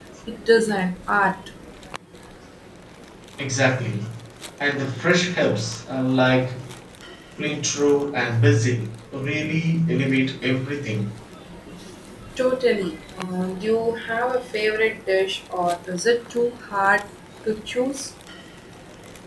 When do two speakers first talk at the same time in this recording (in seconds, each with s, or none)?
none